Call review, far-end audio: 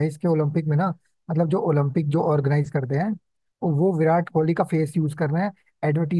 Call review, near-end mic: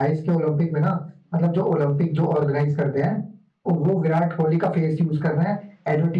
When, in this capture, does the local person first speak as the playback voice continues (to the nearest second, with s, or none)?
none